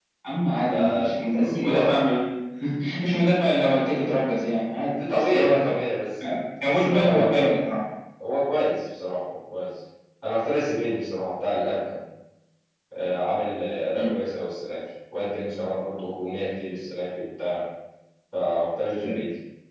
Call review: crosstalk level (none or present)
present